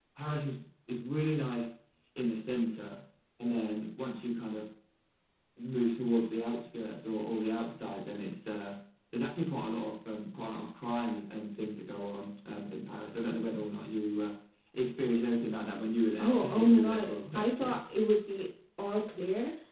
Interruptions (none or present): present